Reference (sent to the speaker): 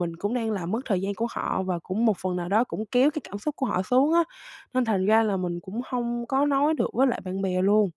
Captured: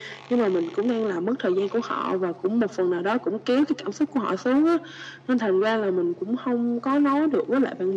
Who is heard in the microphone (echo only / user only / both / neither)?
echo only